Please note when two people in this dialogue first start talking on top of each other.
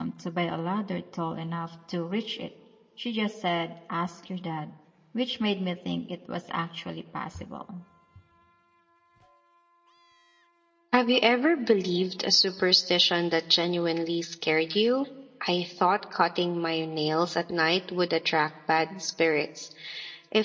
none

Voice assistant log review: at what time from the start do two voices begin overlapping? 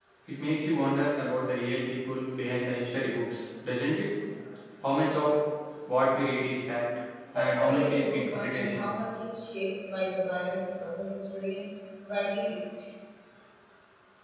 7 s

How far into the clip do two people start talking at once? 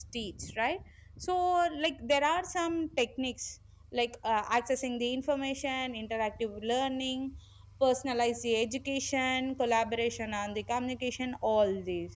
none

